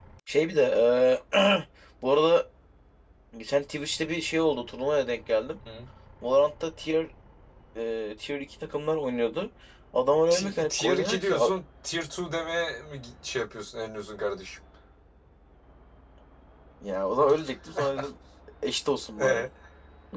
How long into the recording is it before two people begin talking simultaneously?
10.3 s

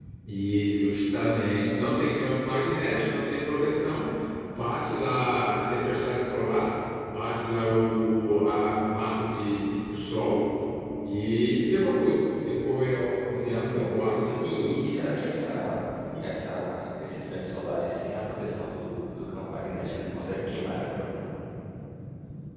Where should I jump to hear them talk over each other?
13.6 s

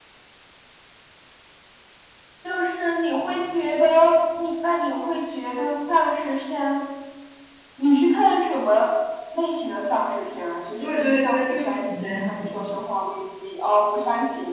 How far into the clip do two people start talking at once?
10.8 s

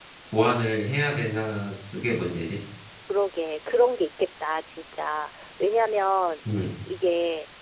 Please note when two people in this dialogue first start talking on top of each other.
none

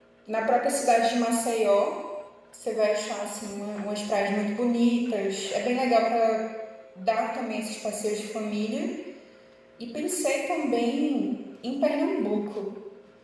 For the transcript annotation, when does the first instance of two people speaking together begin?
none

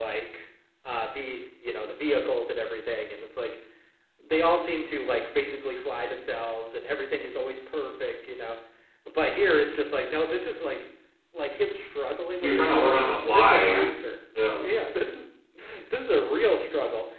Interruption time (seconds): 12.4 s

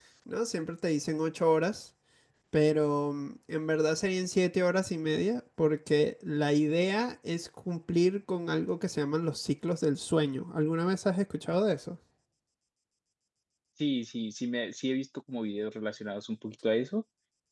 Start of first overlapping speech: none

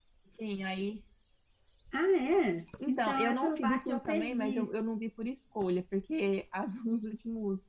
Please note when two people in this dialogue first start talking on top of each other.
2.8 s

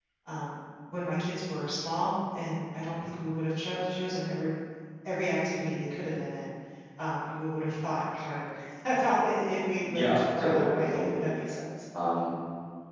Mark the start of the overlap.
9.8 s

